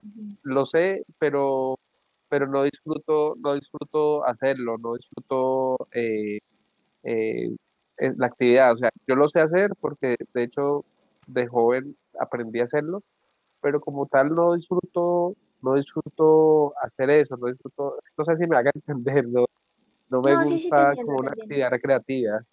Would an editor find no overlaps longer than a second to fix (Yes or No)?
No